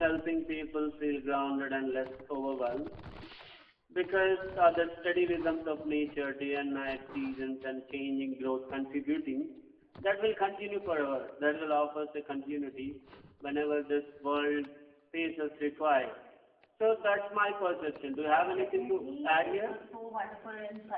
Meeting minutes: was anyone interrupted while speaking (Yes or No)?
Yes